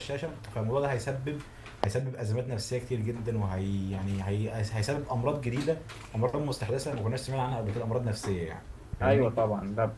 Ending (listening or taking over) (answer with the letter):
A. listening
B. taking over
B